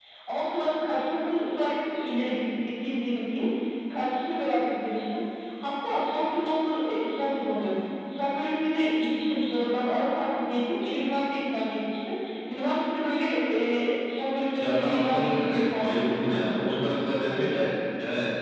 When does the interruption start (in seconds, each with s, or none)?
14.6 s